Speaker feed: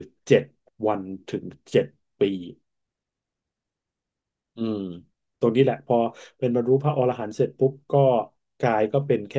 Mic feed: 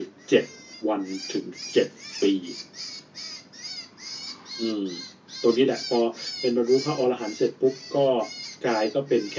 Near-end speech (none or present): none